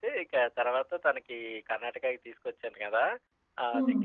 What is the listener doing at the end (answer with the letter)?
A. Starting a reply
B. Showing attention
B